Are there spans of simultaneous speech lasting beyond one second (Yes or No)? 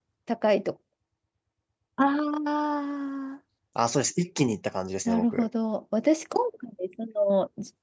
No